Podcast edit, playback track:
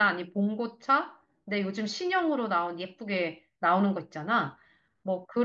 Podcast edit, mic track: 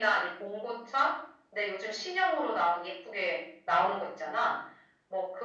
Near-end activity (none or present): none